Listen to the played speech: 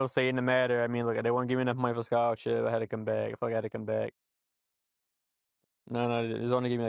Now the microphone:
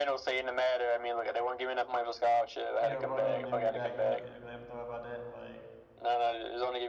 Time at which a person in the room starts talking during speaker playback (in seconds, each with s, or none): 2.8 s